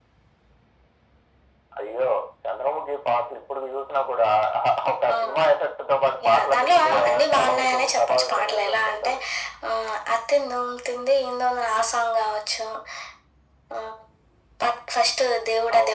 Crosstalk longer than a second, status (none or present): present